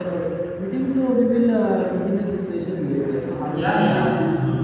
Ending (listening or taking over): taking over